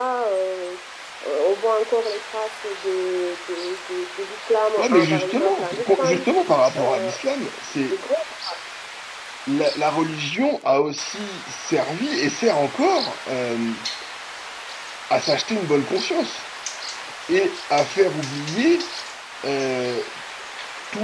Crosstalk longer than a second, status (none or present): present